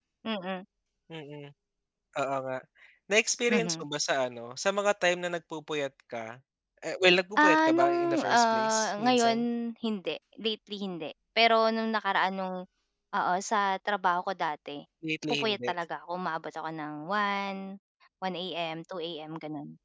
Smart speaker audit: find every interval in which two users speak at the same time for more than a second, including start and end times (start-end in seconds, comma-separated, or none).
7.4-9.4